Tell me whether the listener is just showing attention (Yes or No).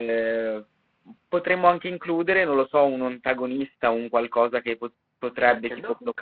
Yes